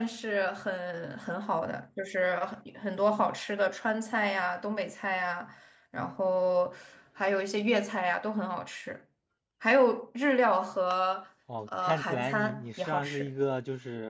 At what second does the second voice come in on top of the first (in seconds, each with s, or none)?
11.8 s